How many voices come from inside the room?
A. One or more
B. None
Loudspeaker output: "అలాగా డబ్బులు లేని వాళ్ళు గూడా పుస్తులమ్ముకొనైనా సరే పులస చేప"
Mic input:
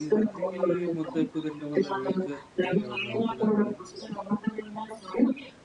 A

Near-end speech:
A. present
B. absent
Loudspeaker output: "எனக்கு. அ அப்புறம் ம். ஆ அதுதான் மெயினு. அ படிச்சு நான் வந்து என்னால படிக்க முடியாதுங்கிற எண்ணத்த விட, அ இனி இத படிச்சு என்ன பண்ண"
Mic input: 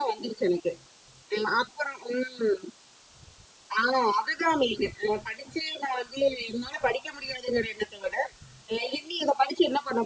B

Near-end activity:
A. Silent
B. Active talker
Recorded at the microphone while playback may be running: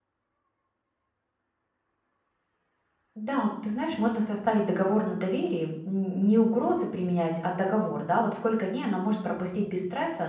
B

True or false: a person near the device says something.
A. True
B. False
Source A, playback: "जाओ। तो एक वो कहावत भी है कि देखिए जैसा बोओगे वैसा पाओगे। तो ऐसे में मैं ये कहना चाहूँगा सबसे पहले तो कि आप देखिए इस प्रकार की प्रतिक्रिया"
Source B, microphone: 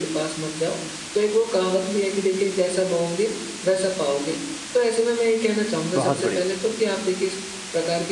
A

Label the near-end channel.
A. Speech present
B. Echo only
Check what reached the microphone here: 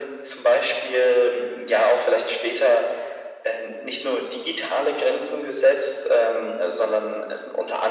B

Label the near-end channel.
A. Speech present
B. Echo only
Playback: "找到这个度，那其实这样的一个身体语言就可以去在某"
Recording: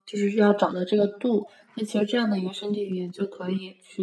B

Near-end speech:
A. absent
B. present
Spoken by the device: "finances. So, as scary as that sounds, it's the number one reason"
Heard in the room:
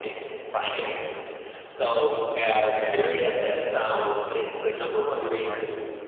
B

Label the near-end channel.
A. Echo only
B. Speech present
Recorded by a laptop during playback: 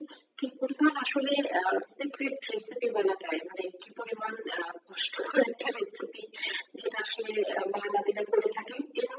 A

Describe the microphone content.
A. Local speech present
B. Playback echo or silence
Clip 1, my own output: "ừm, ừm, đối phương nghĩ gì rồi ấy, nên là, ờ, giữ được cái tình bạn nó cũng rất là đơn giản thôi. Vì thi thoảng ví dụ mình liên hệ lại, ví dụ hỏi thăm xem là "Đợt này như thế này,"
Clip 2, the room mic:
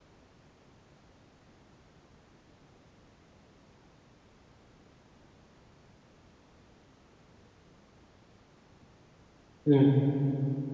A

